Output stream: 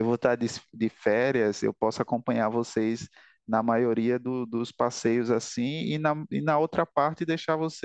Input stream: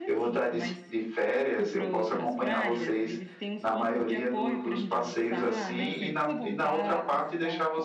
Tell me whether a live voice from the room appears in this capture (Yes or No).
Yes